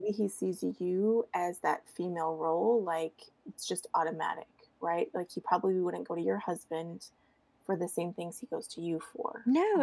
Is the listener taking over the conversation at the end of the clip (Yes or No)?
Yes